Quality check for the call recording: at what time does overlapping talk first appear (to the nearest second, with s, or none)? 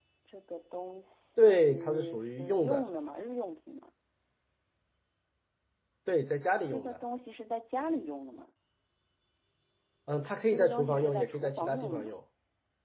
1 s